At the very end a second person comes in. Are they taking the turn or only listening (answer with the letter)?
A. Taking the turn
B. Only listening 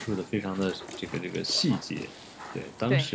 B